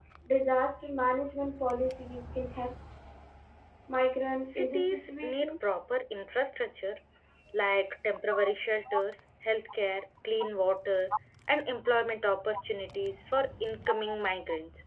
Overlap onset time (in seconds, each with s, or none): 4.4 s